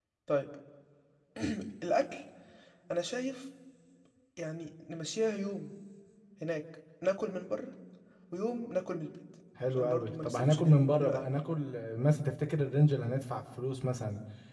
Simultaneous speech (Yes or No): Yes